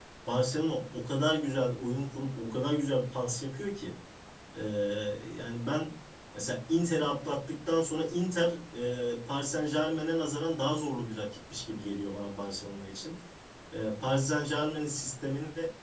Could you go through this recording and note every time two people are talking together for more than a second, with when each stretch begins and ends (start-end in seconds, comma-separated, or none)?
none